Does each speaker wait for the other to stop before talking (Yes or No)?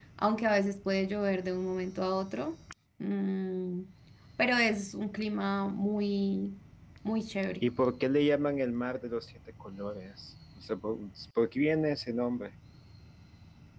Yes